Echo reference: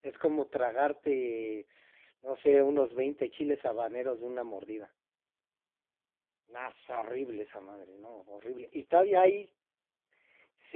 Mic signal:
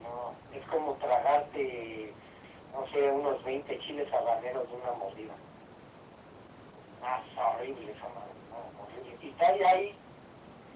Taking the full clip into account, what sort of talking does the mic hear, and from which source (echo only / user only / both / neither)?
echo only